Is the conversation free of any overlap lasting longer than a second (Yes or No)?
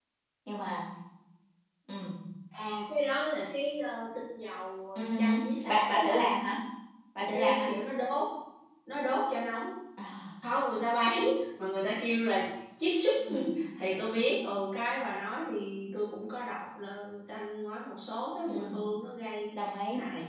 No